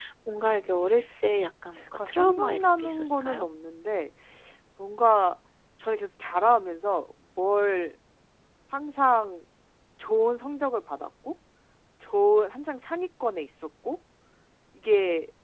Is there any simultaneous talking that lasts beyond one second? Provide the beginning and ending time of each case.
1.9-3.5

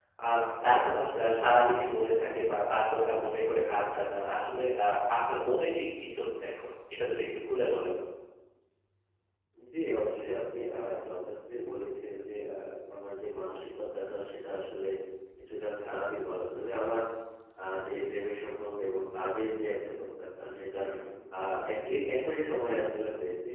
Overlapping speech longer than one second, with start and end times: none

